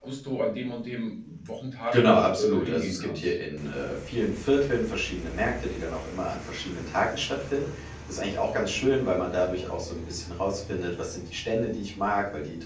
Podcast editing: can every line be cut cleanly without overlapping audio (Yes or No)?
No